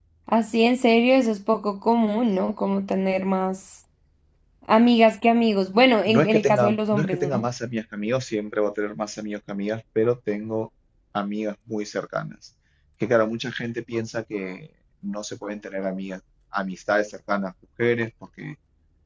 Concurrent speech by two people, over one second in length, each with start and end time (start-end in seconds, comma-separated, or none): 6.1-7.5